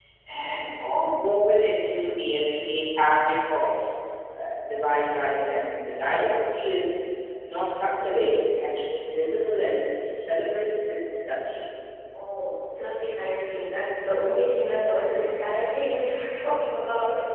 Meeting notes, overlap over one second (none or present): none